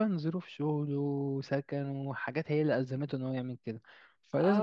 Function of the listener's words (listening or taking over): taking over